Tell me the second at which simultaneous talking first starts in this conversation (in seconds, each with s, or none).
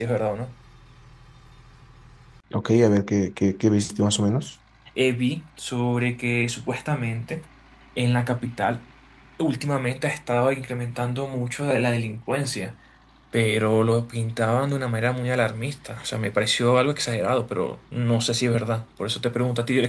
none